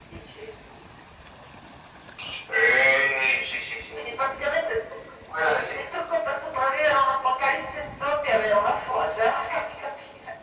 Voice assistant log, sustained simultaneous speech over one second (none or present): none